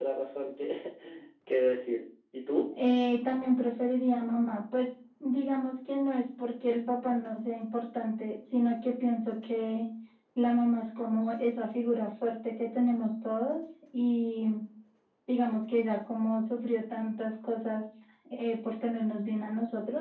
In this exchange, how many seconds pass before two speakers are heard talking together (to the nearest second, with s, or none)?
none